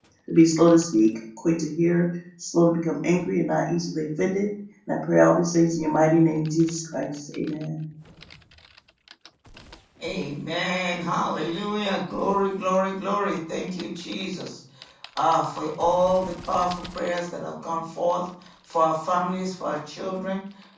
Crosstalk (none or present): none